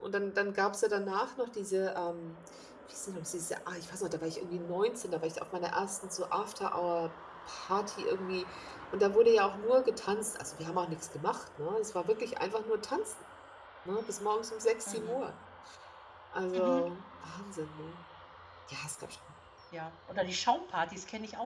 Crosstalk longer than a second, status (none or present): none